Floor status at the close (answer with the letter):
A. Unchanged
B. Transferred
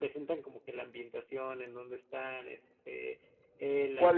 B